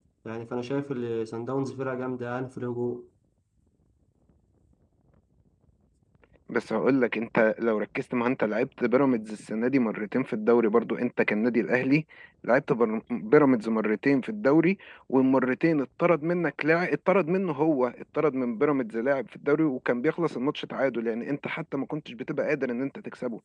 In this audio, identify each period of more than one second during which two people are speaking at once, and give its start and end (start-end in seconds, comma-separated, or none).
none